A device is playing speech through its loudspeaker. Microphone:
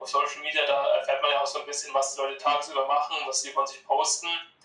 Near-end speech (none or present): none